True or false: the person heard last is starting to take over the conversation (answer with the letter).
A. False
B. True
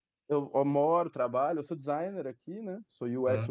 A